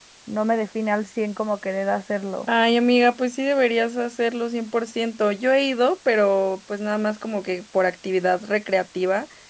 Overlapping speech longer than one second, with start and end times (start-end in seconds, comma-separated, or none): none